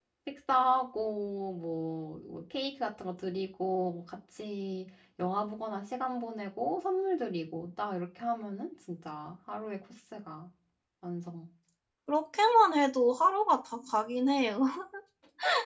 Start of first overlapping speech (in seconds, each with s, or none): none